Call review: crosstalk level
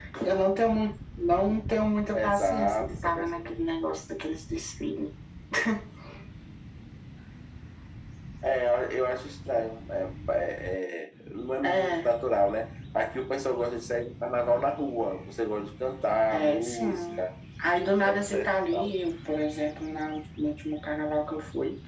present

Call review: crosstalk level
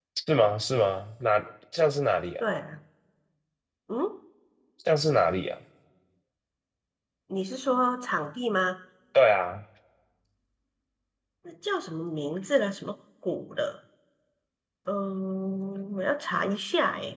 none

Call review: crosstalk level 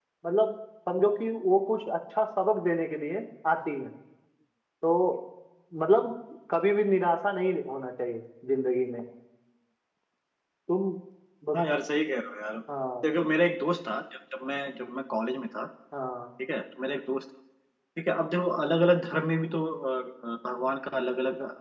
none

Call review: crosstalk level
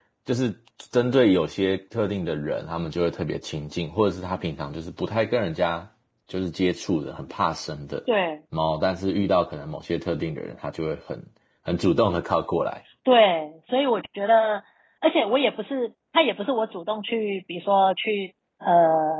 none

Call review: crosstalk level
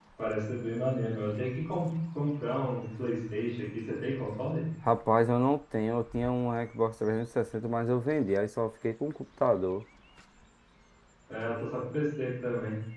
none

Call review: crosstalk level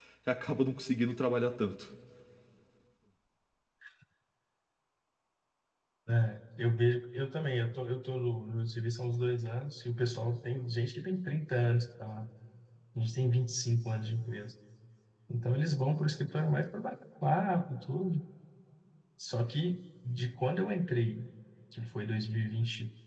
none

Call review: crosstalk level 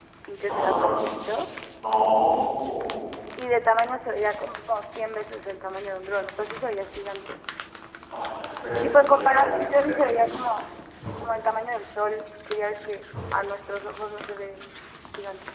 present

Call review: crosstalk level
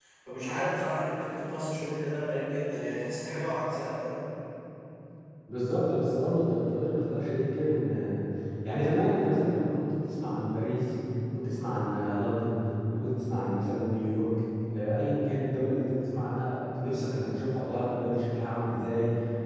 none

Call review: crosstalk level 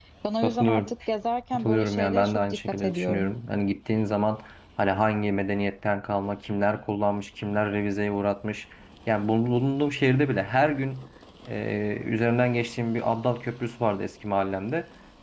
present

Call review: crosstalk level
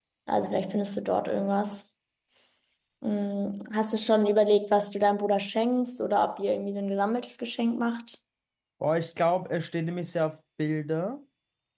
none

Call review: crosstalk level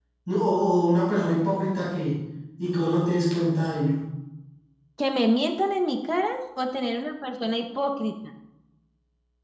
none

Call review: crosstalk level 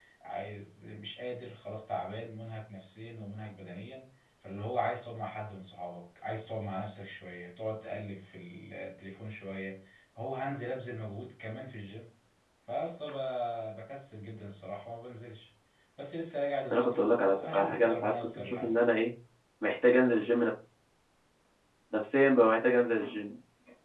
present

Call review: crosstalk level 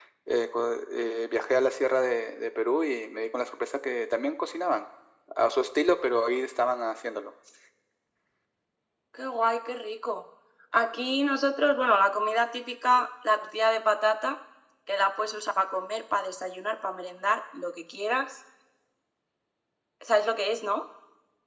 none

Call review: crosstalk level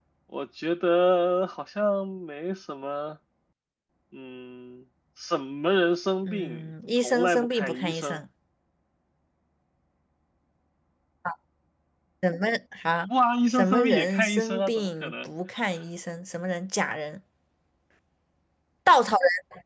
present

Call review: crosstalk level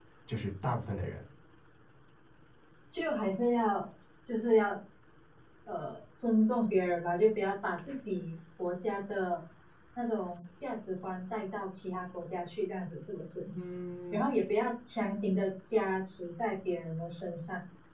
none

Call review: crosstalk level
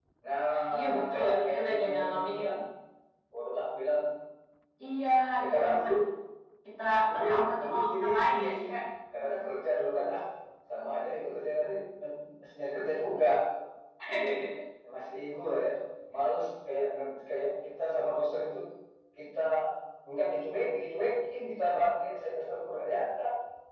present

